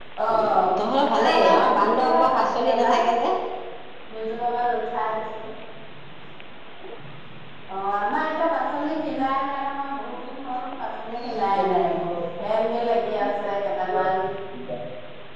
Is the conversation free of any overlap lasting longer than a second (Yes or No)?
No